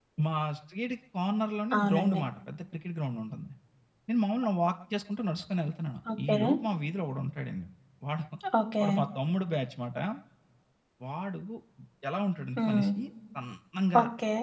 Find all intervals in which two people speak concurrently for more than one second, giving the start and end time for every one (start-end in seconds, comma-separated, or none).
none